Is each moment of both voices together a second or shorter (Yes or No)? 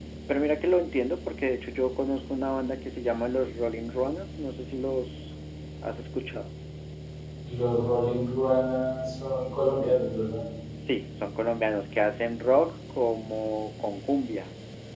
Yes